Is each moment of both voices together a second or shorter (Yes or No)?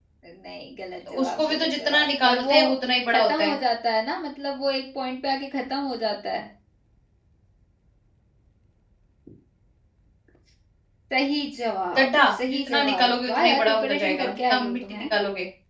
No